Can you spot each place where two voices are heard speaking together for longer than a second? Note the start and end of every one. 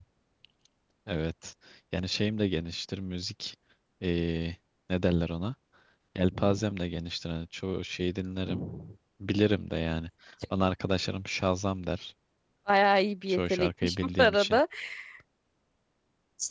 13.3-14.6

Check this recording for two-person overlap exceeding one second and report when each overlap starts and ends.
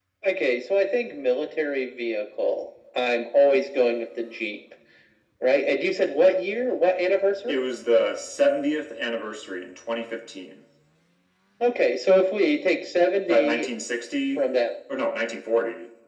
none

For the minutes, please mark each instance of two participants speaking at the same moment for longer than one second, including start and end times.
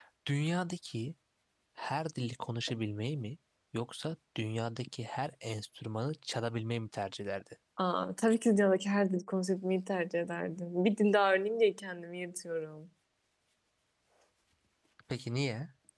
none

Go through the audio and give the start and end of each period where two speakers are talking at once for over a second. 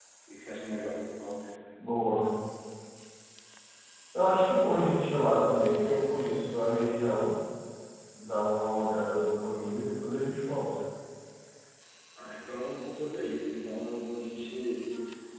none

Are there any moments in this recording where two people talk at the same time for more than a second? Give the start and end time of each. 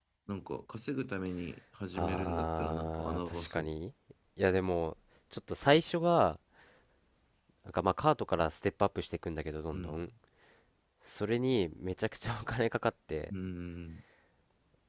1.9-3.7

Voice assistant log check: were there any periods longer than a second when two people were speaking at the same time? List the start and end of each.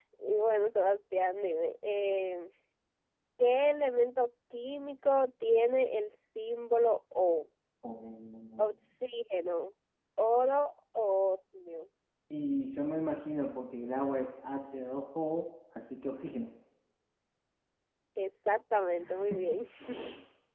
none

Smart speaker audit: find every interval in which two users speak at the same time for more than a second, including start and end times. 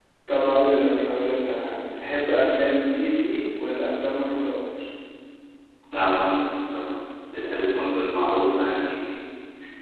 7.4-8.6

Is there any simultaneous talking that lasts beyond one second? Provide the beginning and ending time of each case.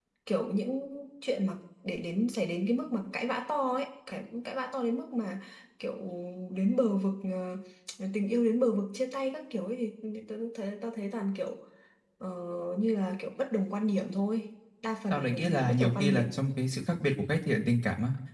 15.1-16.3

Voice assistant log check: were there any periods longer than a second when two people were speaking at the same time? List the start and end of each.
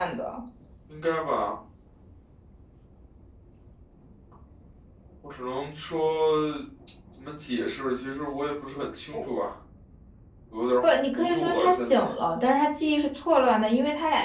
10.8-12.1

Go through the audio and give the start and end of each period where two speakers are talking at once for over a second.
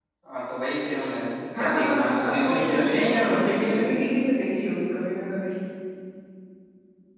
1.6-4.0

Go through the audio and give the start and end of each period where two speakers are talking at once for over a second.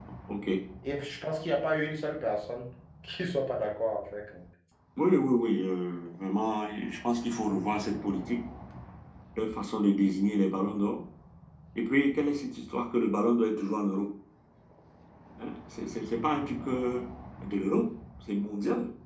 none

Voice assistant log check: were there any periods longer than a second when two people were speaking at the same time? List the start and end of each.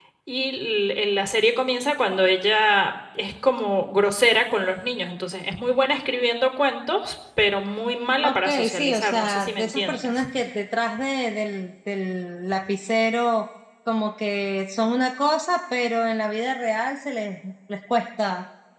8.2-10.3

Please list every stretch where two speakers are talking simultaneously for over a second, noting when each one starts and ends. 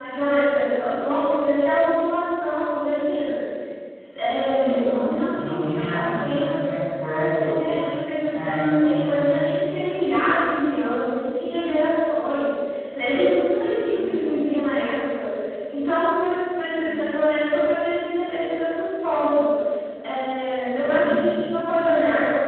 4.5-6.6

